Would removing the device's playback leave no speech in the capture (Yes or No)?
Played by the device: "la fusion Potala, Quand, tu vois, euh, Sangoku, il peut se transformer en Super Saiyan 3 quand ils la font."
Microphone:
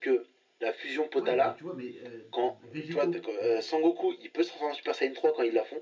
No